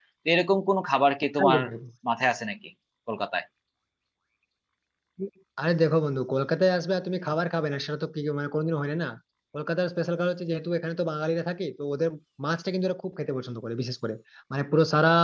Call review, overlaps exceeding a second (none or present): none